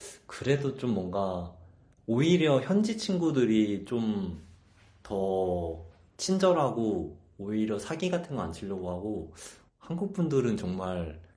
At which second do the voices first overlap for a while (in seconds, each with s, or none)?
none